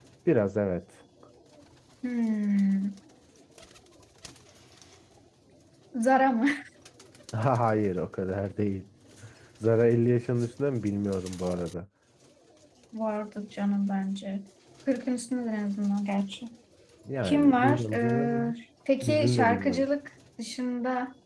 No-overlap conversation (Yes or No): No